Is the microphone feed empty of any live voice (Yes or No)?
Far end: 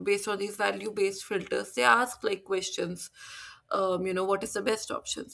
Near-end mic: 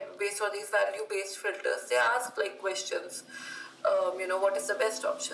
Yes